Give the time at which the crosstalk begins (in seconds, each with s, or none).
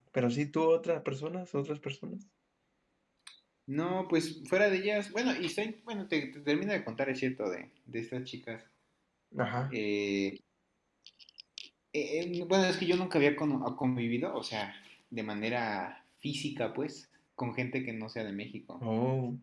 none